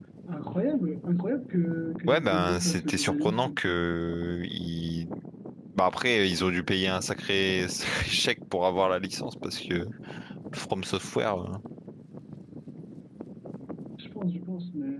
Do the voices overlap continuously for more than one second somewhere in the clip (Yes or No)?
Yes